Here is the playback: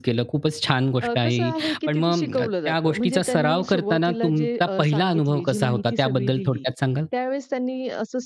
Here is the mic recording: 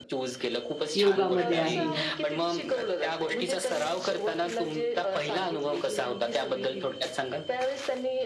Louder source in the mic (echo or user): user